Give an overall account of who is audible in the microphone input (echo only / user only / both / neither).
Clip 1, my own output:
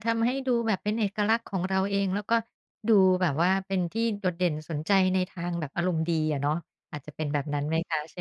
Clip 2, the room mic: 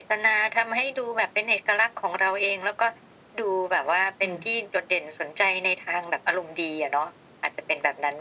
both